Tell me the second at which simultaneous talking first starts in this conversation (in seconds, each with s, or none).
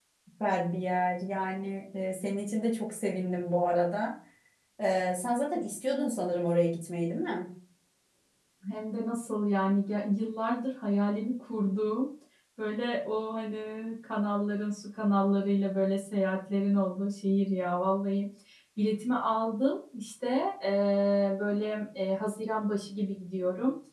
none